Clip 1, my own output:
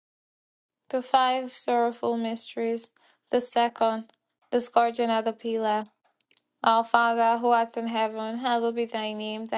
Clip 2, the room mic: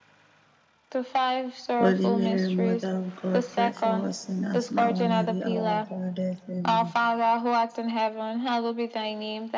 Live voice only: Holy Mary, Mother of God, pray for us sinners, now and at the hour of our death. Amen.

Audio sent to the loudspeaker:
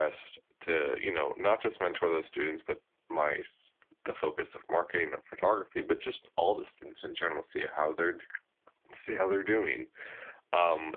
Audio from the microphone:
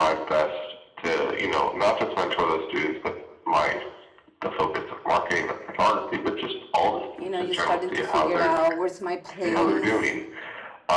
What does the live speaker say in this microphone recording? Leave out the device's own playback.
you know you're starting to figure it out where's my place

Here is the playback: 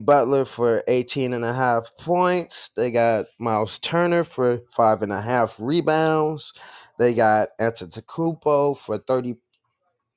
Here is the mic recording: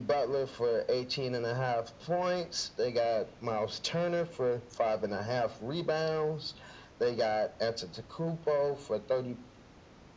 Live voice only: none

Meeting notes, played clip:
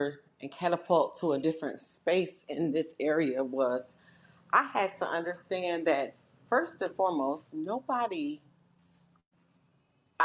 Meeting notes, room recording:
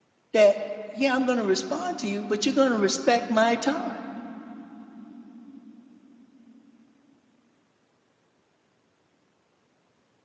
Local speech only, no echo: that, yeah, I'm going to respond to you, but you're going to respect my time.

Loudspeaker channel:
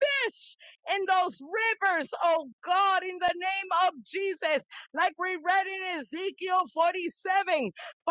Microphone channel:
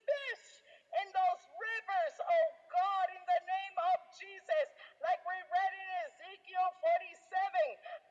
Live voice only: none

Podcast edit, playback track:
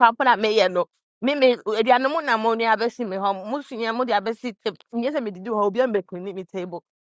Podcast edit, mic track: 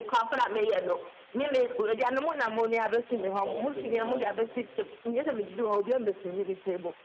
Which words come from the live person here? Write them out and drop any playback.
Yeah, clock tonight.

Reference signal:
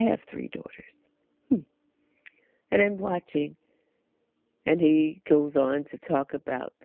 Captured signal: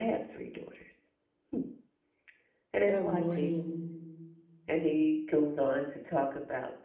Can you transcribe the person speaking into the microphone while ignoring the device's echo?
Good morning.

